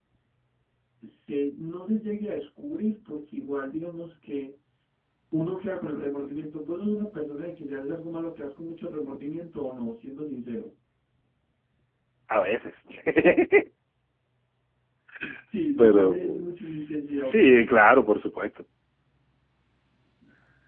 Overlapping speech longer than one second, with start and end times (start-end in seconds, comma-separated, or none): 15.8-17.4